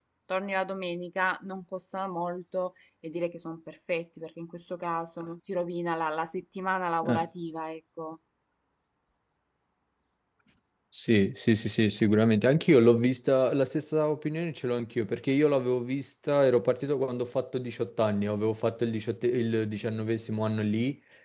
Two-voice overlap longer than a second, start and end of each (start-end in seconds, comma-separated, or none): none